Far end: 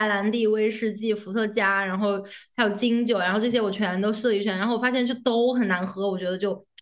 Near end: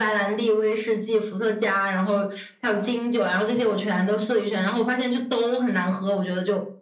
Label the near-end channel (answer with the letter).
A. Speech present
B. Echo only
B